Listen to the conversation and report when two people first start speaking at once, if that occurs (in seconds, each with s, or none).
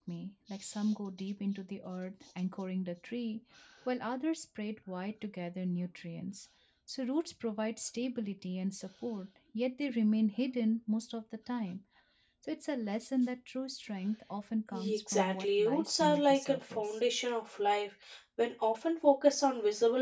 14.7 s